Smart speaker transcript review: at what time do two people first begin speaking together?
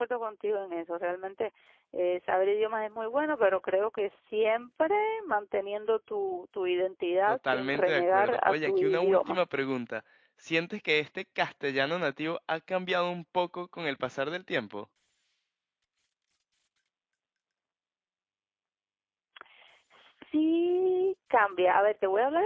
7 s

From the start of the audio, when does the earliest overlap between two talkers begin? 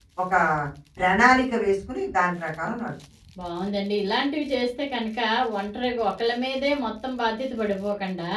none

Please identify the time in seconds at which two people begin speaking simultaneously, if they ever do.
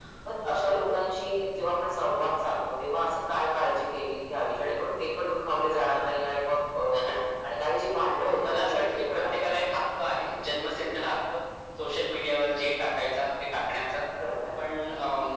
8 s

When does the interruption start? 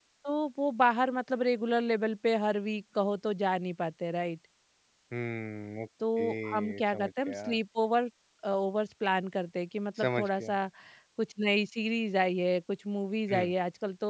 6 s

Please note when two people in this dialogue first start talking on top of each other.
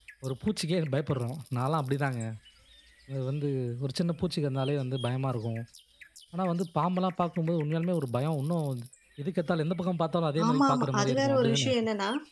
10 s

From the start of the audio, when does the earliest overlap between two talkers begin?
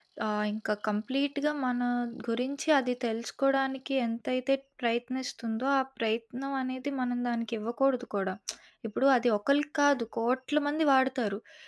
none

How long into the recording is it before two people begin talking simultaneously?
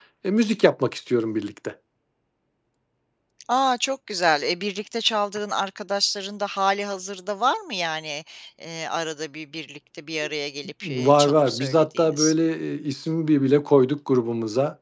11 s

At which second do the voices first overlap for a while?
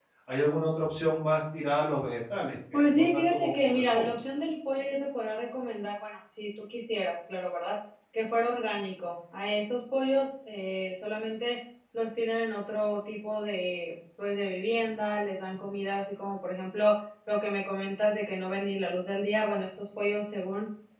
3 s

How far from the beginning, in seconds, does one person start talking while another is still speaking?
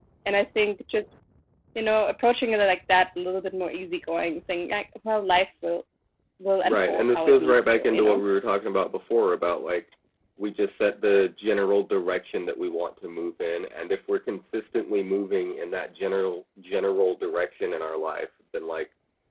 7 s

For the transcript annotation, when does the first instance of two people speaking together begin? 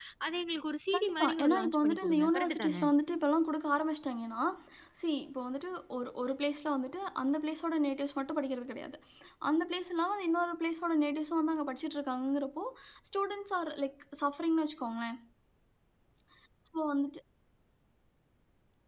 1 s

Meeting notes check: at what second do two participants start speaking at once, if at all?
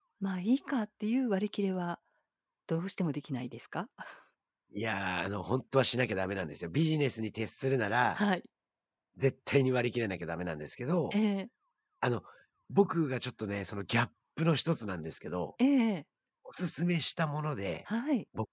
none

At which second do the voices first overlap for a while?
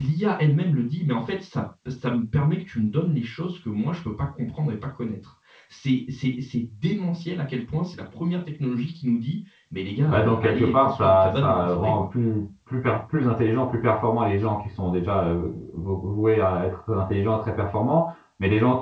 10 s

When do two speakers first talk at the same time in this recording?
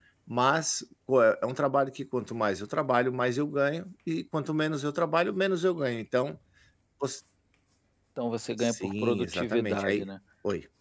9 s

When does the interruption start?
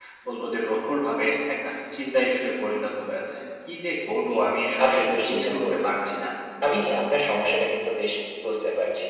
5 s

